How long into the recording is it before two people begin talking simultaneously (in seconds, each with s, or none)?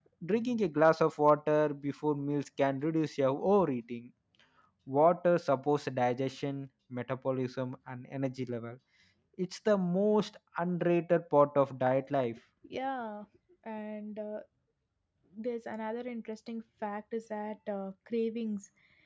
none